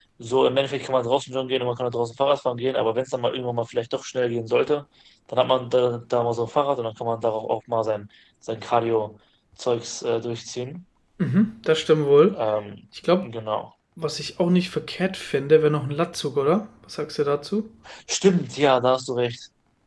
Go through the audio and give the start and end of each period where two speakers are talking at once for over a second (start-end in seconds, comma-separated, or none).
none